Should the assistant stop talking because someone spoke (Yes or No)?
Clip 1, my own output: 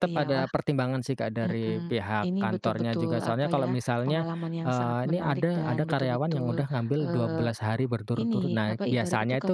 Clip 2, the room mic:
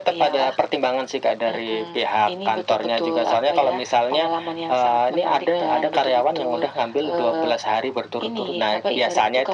No